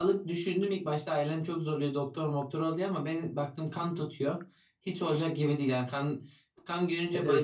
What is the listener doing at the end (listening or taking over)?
listening